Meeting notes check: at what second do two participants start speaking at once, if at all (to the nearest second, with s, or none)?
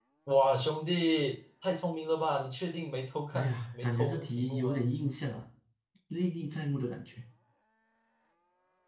3 s